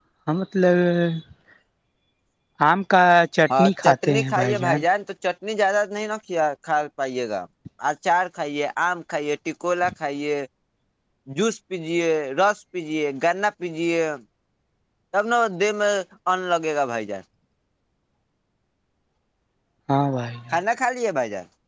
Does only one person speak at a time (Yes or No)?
No